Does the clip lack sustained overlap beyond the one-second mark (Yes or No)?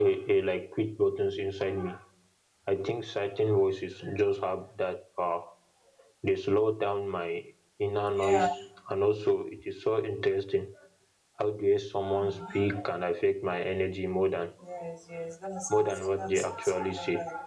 No